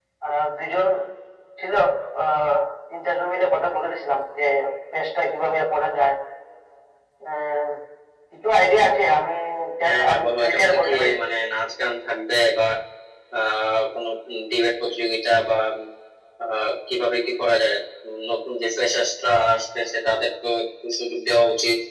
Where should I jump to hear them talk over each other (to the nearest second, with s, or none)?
10 s